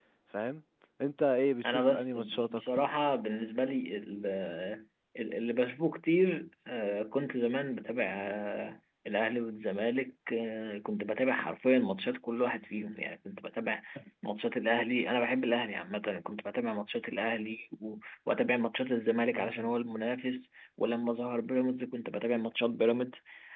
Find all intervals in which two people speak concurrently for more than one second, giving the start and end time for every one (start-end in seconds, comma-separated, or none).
1.6-3.0